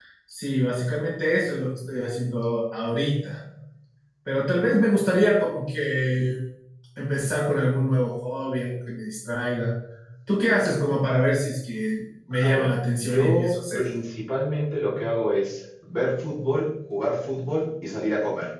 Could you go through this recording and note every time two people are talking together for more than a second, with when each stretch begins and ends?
12.3-13.8

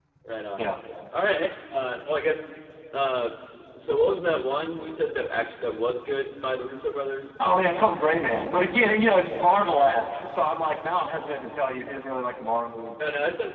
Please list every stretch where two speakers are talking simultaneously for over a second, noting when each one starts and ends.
none

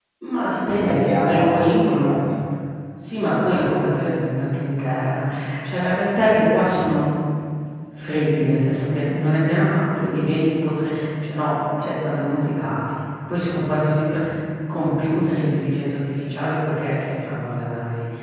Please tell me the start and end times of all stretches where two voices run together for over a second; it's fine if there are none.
0.8-2.2

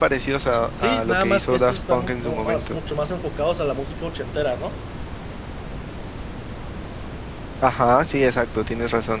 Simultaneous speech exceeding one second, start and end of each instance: 0.8-2.8

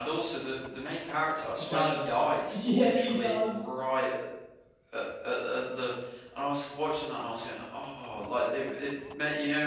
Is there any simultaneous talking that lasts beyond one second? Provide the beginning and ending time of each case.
1.6-3.6

